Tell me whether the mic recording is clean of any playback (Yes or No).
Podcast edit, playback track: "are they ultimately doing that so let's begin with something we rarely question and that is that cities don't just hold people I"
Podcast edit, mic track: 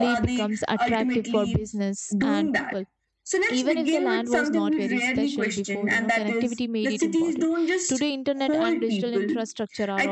No